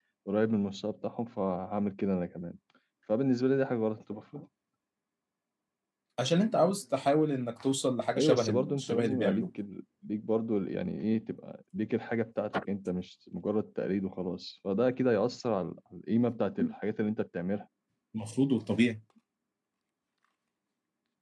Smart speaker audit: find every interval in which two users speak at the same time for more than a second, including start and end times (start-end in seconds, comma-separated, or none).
8.2-9.5